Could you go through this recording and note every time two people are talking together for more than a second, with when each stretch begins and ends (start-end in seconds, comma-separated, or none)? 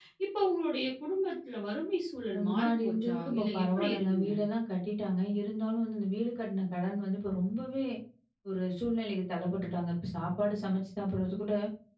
2.3-4.3